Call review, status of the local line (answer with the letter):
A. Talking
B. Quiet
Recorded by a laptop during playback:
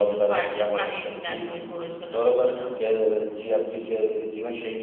B